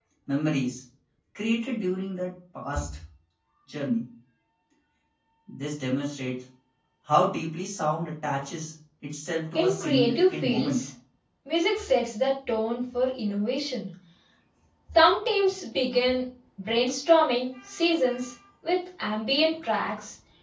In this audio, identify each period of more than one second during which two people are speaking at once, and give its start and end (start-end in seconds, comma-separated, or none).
9.6-10.8